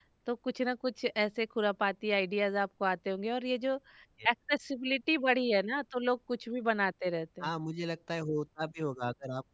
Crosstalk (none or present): none